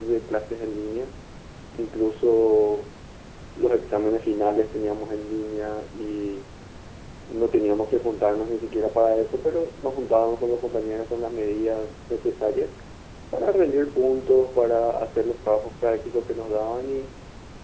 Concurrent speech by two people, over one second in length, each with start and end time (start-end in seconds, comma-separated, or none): none